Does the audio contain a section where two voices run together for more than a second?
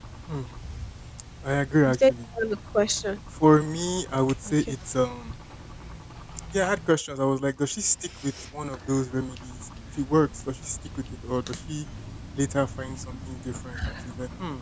No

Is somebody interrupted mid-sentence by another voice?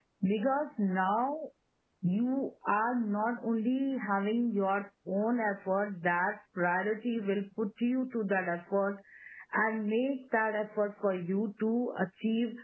No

